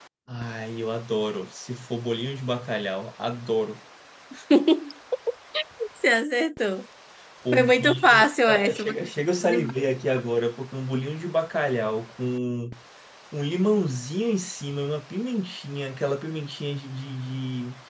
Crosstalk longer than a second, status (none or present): present